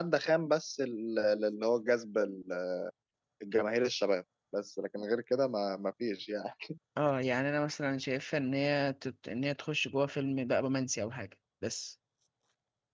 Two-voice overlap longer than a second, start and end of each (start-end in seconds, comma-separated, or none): none